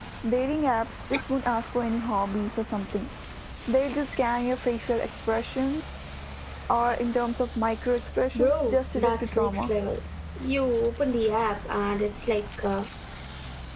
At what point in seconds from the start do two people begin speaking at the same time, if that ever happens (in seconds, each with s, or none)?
8.3 s